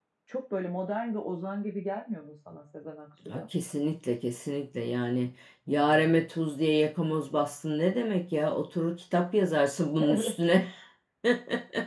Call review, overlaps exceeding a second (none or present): none